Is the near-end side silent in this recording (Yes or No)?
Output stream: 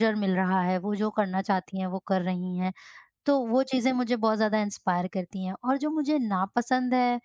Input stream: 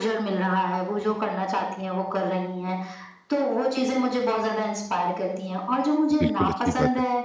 No